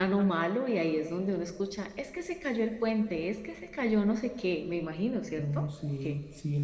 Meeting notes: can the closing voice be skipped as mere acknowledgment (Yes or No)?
No